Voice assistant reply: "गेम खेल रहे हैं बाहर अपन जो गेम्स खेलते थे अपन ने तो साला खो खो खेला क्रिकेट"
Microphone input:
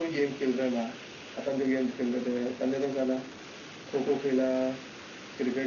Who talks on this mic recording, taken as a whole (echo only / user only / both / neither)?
echo only